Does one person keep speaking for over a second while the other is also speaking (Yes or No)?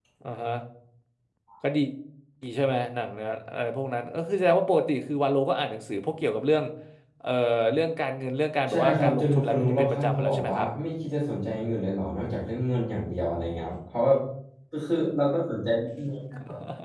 Yes